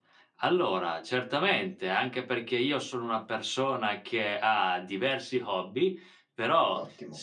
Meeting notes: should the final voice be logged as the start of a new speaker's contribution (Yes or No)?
No